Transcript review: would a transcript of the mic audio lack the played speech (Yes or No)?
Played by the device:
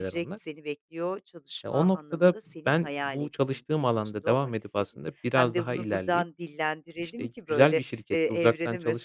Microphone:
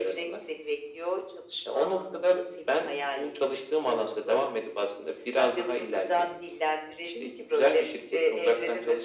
No